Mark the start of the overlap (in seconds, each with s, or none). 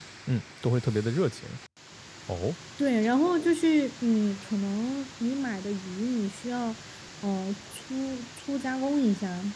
none